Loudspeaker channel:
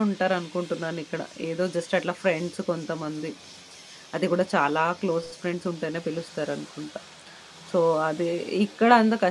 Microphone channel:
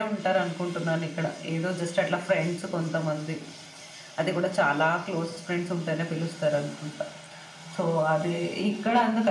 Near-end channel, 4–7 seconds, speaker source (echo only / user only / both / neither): echo only